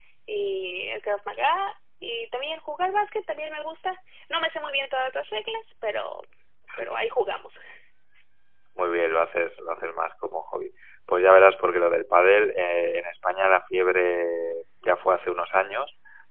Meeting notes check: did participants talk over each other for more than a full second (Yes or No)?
No